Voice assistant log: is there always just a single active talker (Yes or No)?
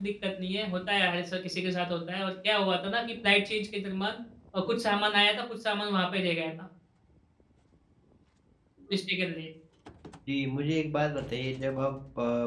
Yes